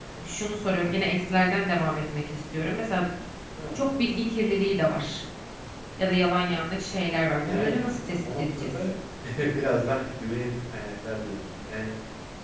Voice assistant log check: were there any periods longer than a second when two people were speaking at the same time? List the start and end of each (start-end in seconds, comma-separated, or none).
7.5-8.7